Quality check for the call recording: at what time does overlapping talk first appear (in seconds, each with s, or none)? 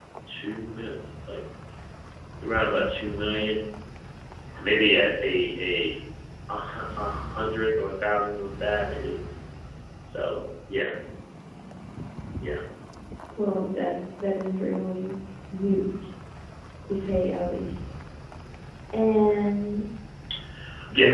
none